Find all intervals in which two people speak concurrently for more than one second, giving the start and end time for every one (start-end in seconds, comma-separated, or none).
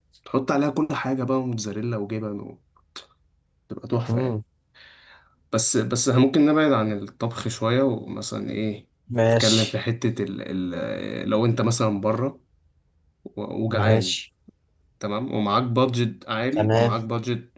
none